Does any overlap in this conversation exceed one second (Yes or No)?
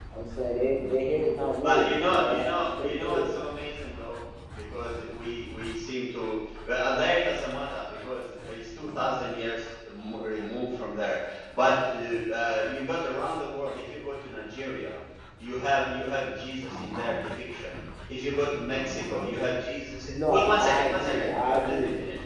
Yes